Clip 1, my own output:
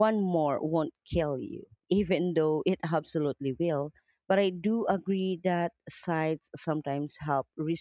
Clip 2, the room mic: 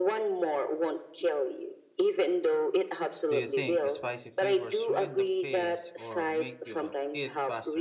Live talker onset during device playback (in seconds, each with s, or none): 3.3 s